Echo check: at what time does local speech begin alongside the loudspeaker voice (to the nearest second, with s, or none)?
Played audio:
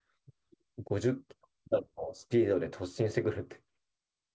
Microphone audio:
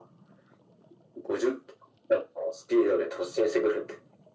none